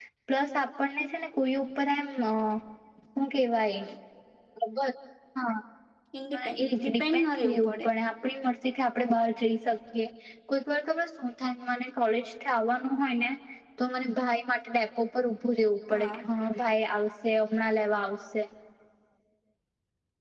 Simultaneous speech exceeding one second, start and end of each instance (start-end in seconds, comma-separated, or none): 6.3-7.9